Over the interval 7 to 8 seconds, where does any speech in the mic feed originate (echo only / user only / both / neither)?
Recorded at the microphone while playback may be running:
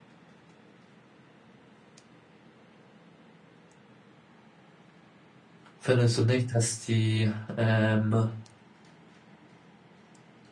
user only